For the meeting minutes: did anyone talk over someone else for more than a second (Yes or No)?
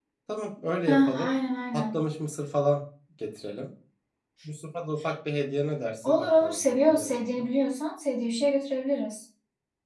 Yes